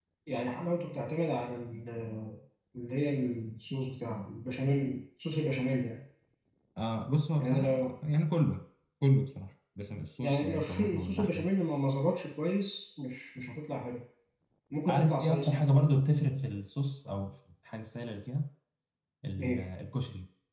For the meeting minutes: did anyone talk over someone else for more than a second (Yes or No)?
Yes